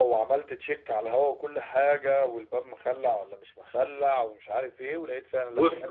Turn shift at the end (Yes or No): Yes